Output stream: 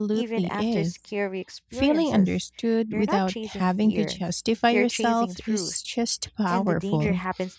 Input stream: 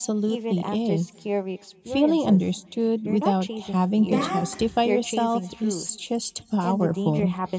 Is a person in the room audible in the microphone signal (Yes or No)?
Yes